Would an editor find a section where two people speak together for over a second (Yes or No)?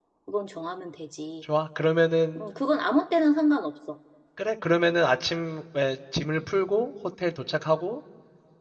No